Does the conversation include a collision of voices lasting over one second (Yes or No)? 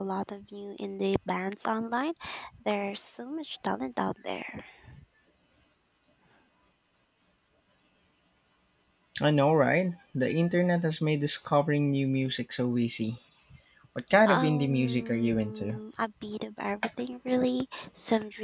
Yes